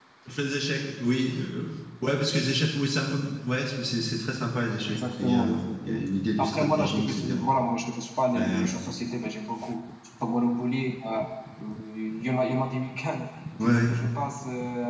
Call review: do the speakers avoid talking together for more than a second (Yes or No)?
No